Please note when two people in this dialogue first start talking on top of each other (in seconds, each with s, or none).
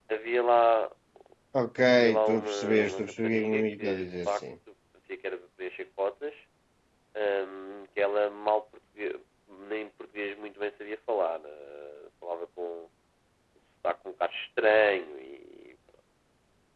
2.2 s